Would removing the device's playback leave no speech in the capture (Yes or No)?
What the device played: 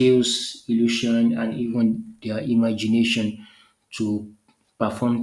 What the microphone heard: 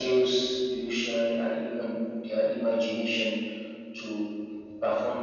Yes